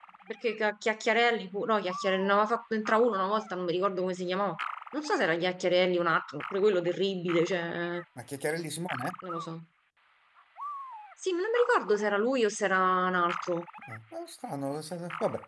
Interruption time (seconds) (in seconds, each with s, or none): none